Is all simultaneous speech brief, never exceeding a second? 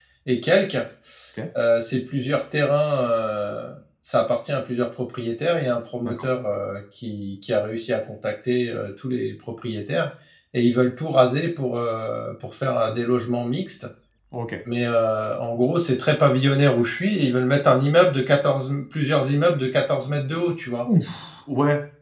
Yes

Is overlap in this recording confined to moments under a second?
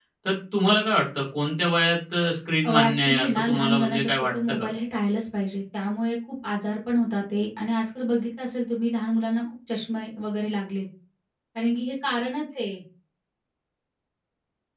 No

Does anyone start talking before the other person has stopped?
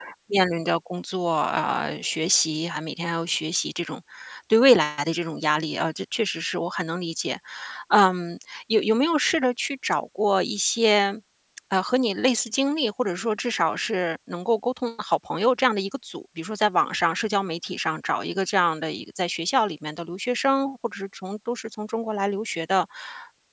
No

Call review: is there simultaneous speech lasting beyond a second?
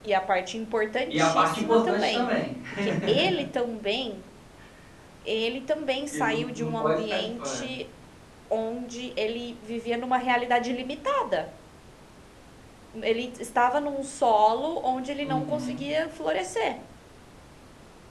Yes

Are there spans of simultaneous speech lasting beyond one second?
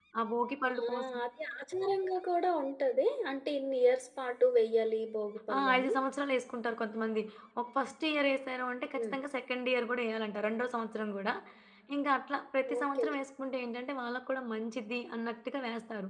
No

